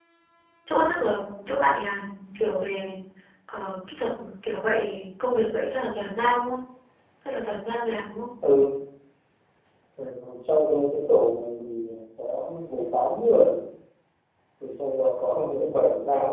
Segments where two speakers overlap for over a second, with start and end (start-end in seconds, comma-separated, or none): none